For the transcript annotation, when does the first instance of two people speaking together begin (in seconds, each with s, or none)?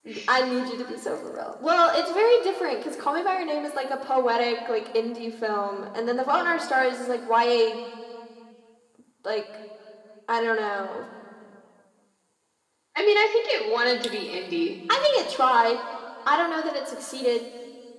none